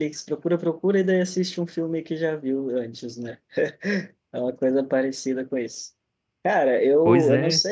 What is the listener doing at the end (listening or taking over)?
listening